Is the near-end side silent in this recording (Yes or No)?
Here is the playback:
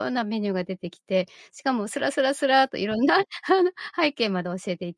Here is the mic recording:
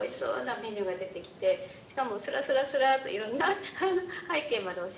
Yes